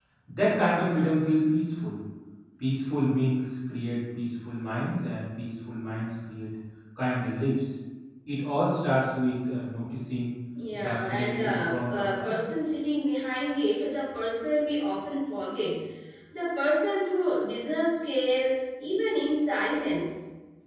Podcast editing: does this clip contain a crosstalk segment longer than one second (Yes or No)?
Yes